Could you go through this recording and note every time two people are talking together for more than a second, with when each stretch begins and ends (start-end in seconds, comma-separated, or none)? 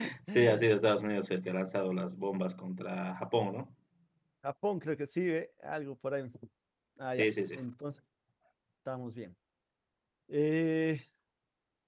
none